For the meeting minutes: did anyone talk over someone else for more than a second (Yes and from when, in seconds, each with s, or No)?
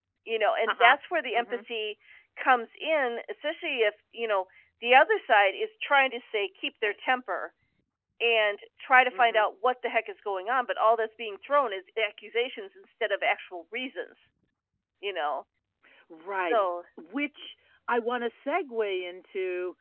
No